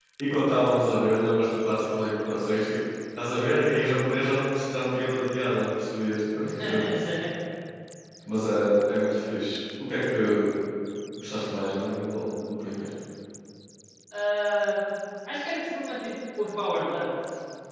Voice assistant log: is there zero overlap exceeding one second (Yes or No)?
Yes